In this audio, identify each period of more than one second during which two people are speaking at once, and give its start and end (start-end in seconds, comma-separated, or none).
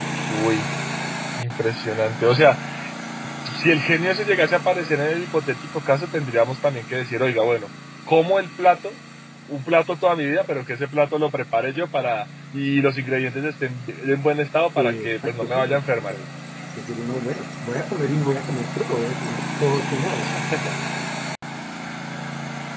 14.8-16.1